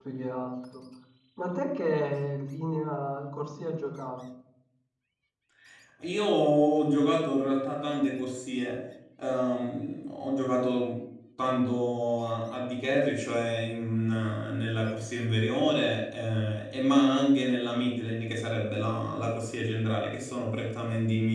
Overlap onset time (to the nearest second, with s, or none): none